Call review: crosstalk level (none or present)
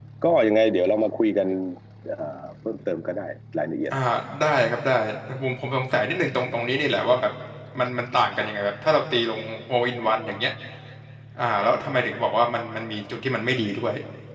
none